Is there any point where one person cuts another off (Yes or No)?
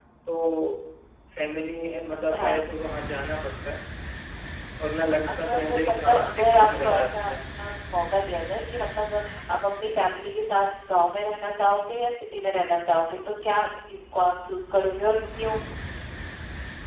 Yes